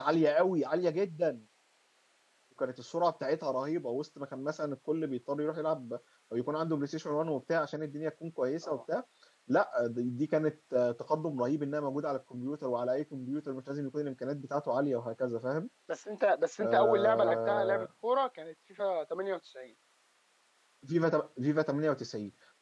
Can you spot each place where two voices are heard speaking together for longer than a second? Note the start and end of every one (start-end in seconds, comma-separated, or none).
16.6-17.9